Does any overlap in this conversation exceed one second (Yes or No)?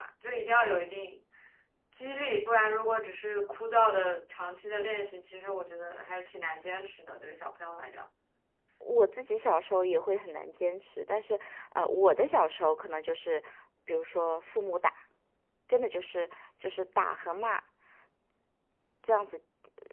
No